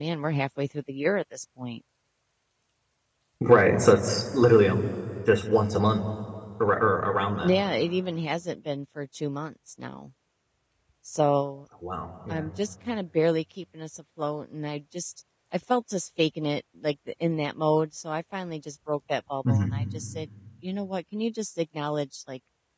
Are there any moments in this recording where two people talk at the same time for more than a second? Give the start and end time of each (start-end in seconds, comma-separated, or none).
none